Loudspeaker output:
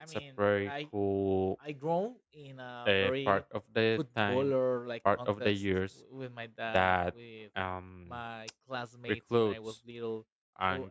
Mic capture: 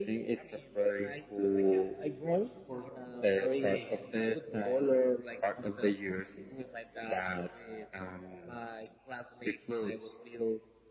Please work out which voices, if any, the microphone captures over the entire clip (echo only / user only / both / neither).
both